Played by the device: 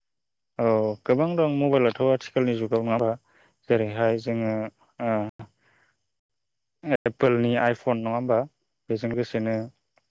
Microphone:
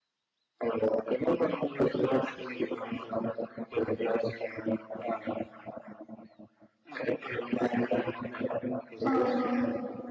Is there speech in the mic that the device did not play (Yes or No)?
Yes